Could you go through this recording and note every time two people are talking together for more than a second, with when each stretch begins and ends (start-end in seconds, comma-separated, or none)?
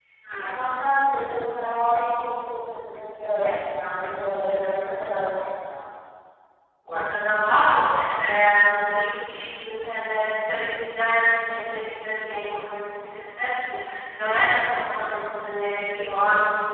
none